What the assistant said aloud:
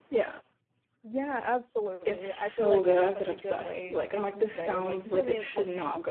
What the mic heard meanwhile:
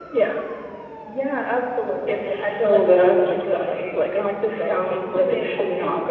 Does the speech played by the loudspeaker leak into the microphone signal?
Yes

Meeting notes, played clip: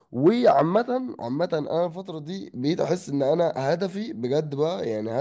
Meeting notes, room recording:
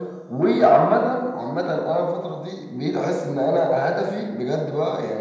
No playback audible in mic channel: No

